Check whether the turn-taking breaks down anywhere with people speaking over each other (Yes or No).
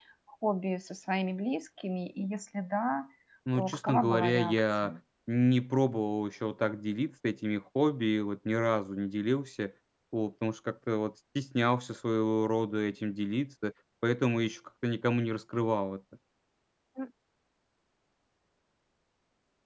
Yes